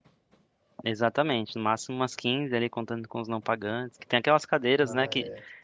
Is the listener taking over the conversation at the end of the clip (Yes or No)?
No